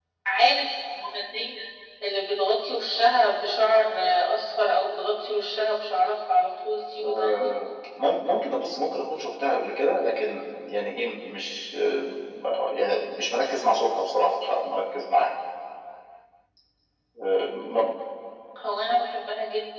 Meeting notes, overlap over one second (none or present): none